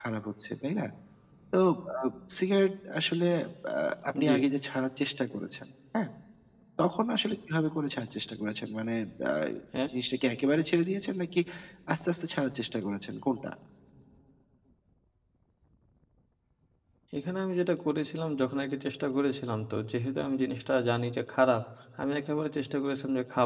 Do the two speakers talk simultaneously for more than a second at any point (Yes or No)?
No